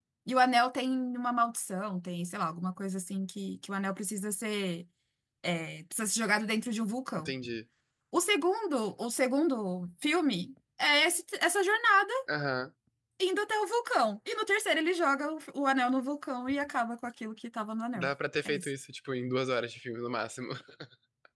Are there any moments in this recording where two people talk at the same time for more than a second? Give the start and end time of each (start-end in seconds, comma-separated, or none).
none